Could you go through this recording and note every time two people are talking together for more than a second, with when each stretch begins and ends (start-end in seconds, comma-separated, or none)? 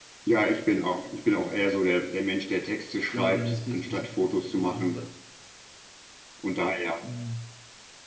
3.1-5.0